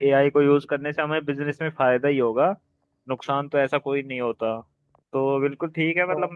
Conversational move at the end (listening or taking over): listening